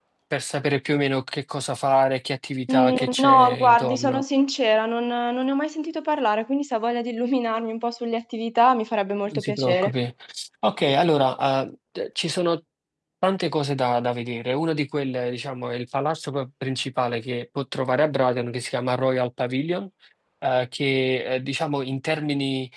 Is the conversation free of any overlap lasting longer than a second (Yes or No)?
No